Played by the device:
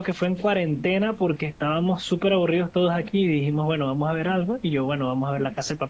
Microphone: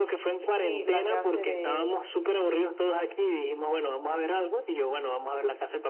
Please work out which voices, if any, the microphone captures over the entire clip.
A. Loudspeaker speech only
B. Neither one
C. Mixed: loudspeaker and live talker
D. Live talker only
C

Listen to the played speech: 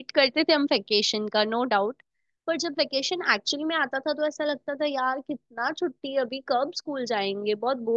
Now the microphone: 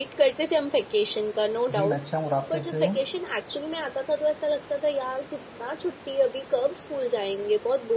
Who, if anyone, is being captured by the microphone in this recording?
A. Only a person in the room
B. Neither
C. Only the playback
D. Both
D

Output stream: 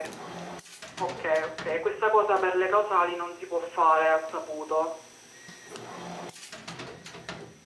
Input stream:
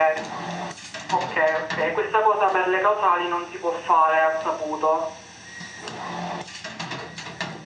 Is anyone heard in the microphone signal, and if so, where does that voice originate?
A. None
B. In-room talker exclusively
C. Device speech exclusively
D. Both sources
C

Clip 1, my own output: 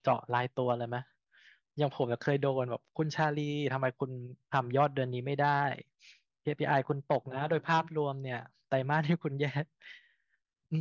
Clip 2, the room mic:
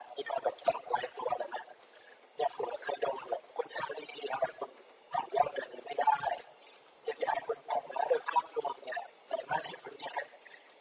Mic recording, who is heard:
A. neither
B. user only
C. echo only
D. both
C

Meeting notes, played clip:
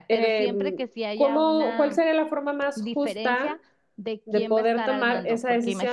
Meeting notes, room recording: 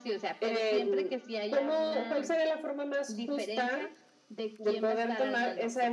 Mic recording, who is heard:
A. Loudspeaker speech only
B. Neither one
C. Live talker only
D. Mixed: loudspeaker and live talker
A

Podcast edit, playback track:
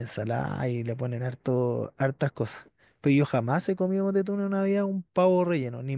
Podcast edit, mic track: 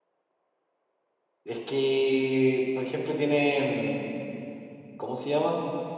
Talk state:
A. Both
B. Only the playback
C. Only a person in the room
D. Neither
C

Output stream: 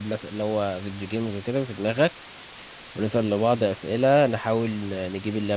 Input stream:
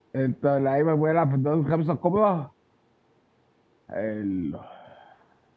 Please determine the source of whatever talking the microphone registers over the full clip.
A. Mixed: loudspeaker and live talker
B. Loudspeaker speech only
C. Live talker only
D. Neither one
C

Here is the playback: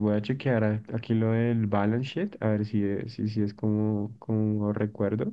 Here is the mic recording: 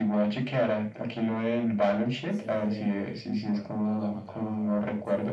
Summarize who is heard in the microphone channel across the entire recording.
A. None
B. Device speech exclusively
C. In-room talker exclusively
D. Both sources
D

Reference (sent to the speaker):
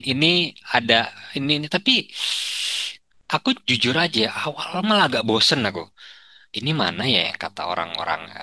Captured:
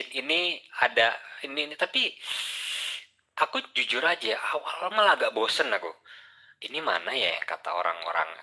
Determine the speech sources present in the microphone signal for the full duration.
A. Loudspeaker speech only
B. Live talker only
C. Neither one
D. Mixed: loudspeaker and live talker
A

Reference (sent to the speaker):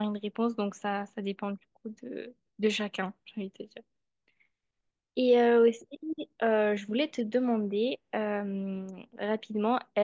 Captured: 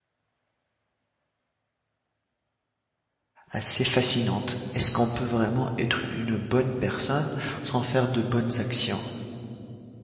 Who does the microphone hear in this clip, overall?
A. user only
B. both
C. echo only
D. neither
A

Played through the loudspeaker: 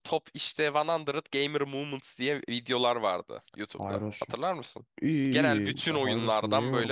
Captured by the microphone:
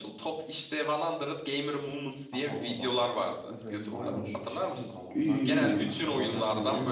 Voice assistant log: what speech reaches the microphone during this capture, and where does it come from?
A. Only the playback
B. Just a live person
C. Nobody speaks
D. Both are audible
D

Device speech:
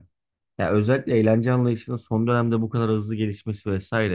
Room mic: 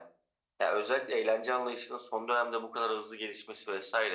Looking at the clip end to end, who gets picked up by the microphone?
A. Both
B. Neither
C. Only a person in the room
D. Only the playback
D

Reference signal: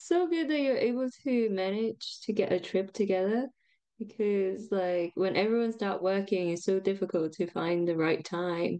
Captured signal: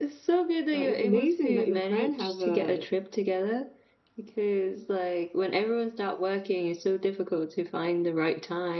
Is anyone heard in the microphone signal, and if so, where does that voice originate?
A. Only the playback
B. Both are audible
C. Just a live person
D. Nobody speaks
B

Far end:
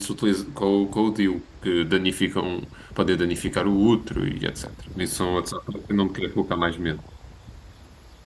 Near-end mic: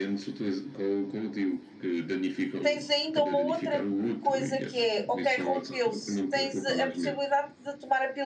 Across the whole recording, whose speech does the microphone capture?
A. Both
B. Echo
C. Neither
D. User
A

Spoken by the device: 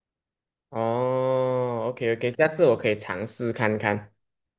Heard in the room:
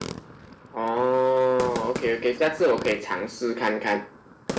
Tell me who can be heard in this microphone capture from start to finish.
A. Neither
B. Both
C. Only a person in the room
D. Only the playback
D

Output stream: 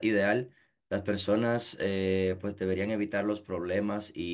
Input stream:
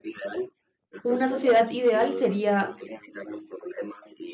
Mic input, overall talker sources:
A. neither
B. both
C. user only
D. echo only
B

